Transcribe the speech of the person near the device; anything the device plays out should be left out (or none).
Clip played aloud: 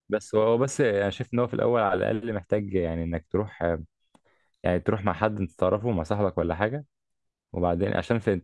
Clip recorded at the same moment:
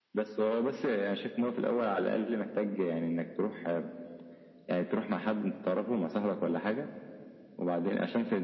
none